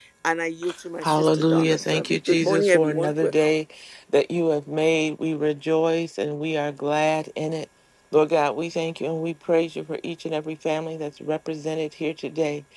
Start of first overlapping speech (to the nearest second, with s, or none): 1 s